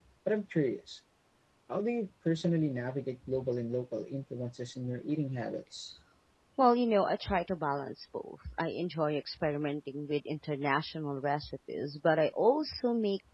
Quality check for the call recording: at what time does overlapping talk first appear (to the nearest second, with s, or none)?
none